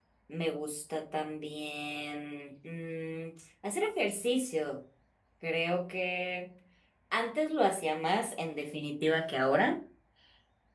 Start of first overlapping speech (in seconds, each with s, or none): none